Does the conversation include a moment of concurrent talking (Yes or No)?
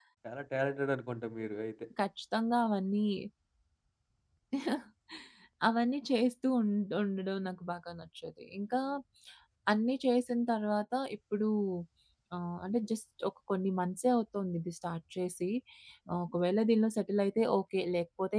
No